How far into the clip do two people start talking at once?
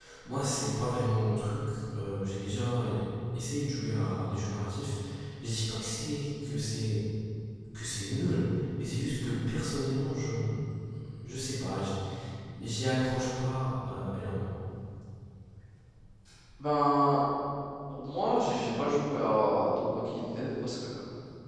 none

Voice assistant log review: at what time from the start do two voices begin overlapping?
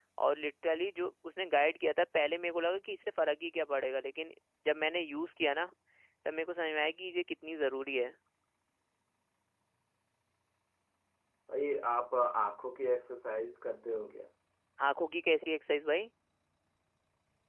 none

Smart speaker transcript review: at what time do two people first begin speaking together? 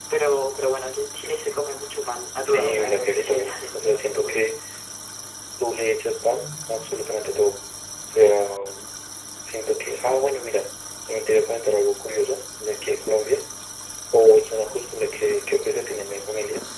2.4 s

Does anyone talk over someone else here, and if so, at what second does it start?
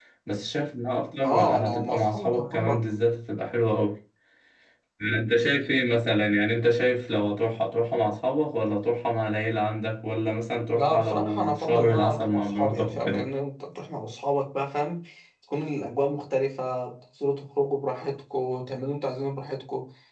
1.2 s

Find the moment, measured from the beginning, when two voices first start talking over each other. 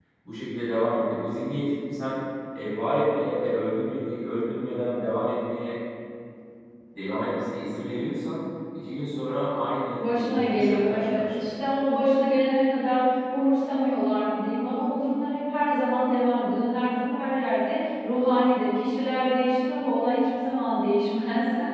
9.9 s

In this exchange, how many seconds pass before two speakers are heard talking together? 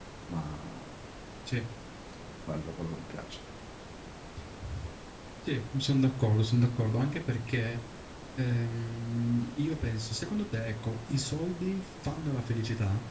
none

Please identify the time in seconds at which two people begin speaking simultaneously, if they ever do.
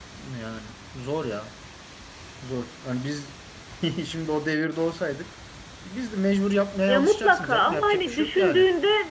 6.9 s

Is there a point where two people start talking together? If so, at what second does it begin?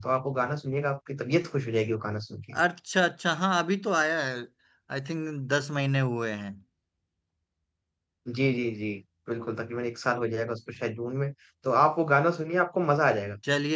none

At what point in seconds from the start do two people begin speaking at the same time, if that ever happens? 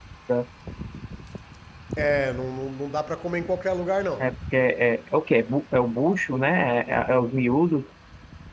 none

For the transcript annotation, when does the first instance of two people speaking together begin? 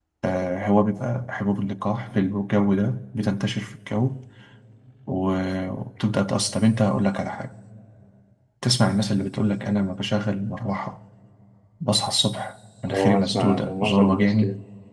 12.9 s

